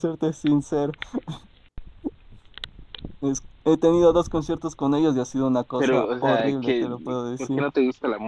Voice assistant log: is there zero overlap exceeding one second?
No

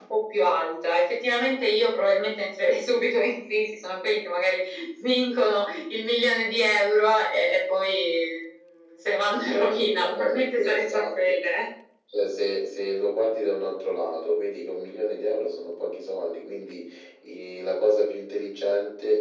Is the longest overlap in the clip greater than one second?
Yes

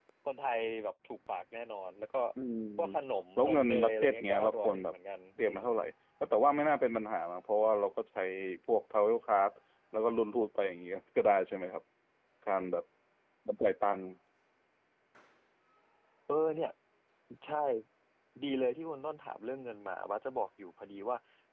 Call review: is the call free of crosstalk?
No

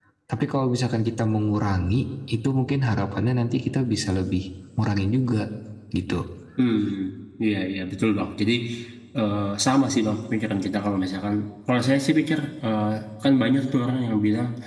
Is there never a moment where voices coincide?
Yes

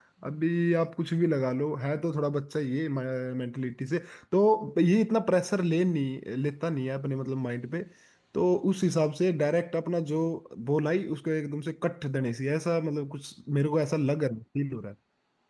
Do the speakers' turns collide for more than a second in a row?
No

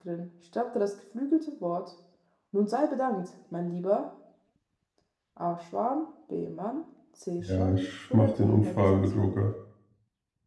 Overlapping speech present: Yes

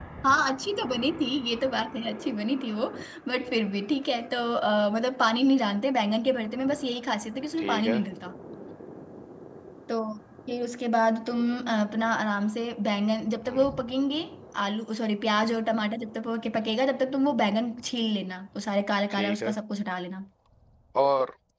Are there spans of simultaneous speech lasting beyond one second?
No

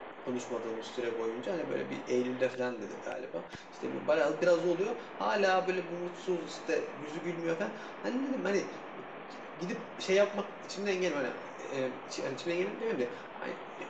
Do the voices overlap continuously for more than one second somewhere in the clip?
No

